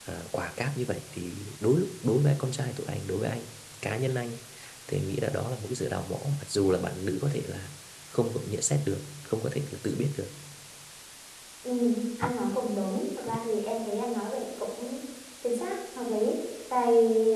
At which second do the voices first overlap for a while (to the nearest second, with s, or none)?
none